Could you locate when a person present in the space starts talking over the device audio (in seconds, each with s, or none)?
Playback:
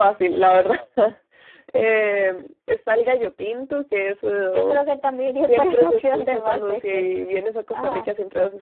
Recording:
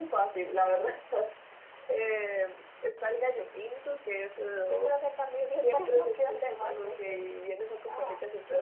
none